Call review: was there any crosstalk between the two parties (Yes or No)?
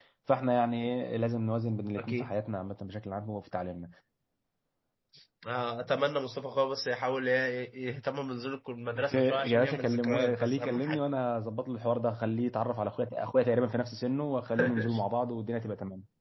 Yes